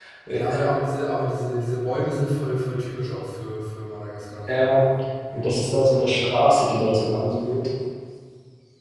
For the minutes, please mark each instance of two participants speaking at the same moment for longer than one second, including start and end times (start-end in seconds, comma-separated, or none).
none